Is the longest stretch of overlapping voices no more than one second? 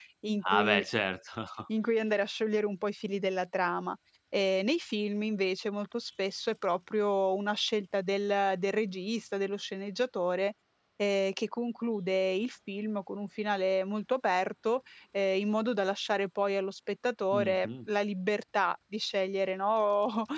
Yes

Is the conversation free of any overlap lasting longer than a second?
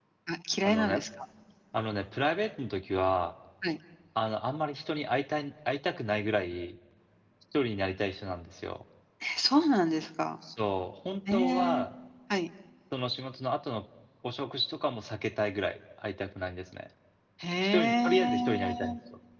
No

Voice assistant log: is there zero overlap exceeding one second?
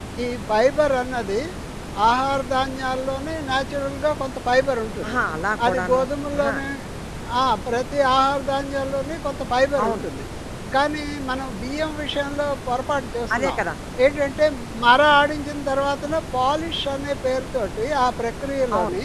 Yes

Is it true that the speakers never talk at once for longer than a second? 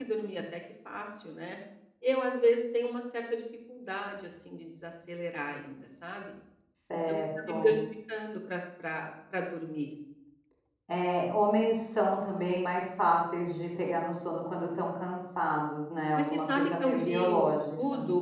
No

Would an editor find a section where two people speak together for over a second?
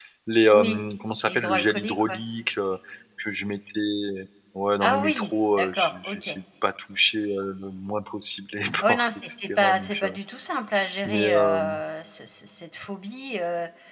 Yes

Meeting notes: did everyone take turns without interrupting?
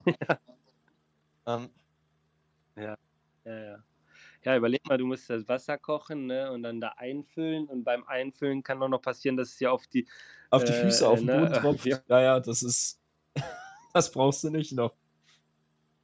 No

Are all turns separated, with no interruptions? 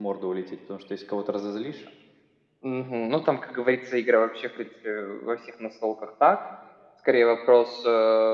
Yes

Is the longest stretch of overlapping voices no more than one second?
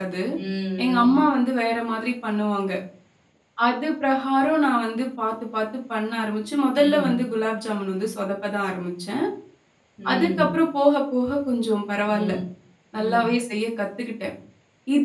Yes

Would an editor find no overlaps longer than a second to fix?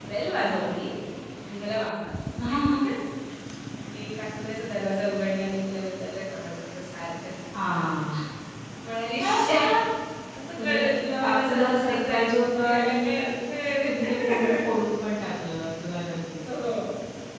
No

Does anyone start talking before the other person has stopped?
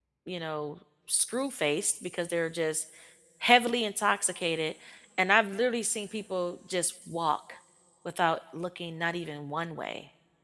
No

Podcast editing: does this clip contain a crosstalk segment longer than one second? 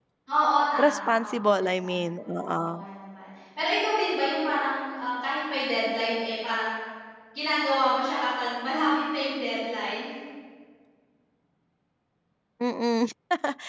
Yes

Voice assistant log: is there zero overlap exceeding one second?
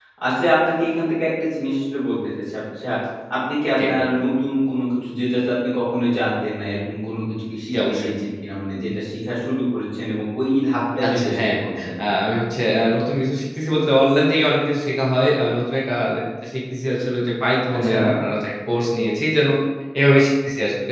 Yes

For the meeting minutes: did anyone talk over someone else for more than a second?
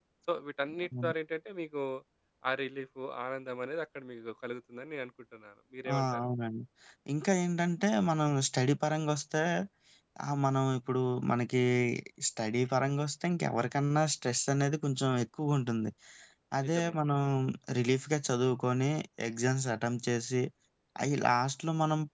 No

